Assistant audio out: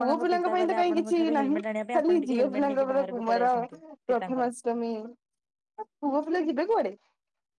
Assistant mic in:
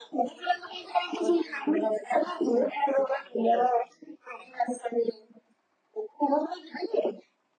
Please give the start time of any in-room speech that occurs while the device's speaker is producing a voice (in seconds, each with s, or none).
none